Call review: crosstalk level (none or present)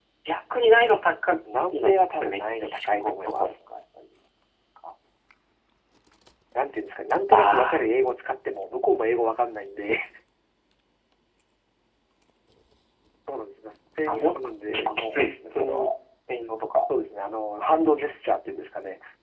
present